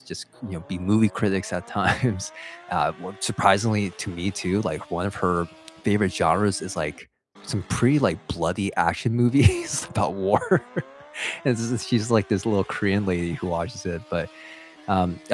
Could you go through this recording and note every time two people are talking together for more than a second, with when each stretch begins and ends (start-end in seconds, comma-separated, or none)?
none